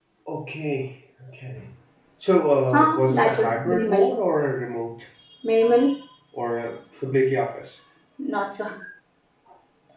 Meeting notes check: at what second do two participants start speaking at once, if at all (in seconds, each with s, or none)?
2.7 s